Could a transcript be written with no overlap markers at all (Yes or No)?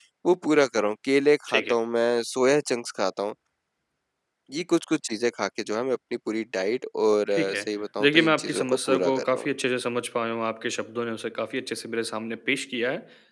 No